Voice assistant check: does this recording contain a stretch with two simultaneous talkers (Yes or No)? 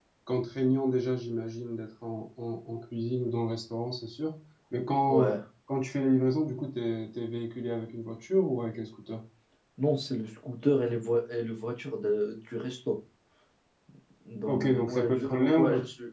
Yes